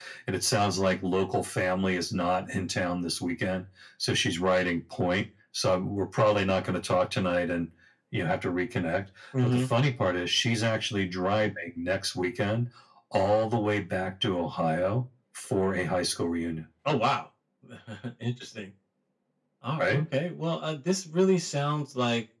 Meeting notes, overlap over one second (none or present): none